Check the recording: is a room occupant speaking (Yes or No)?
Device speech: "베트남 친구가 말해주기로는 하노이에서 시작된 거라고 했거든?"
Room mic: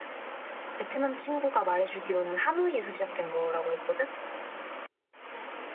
No